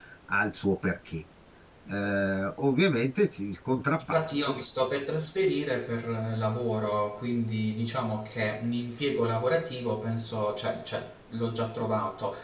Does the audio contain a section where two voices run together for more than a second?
No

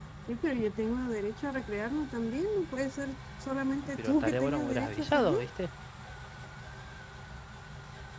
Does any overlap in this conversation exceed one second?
Yes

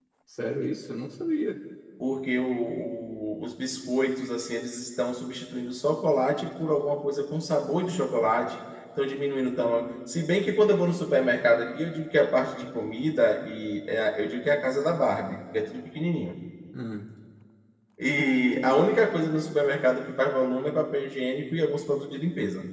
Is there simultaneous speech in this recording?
No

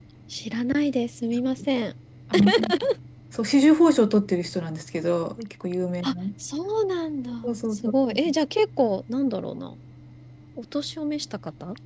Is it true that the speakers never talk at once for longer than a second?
Yes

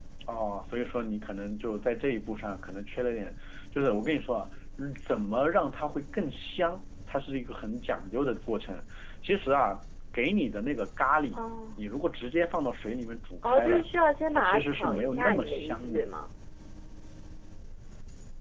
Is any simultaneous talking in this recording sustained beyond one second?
Yes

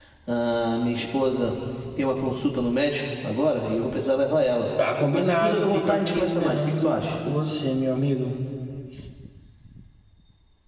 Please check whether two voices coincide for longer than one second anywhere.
Yes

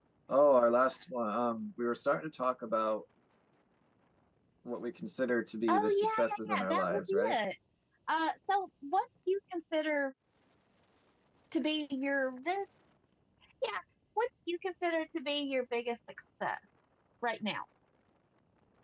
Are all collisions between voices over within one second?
No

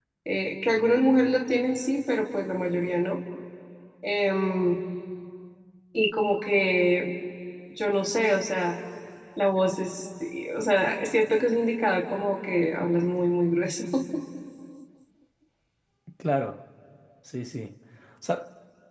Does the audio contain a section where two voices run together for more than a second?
No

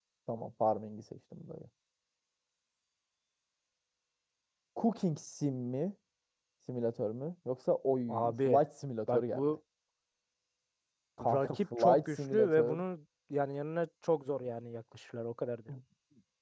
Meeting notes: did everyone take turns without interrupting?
No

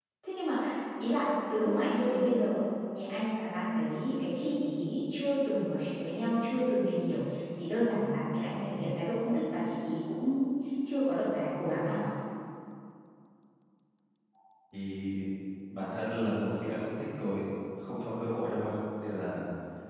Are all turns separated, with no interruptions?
Yes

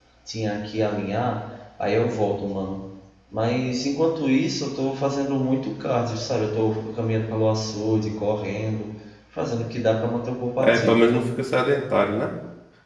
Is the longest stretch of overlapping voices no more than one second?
Yes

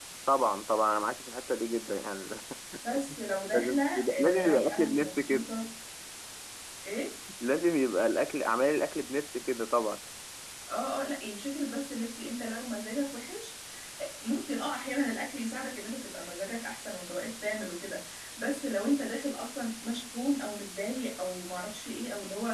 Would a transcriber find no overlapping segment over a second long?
No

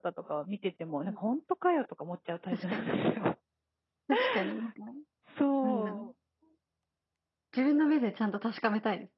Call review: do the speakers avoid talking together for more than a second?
Yes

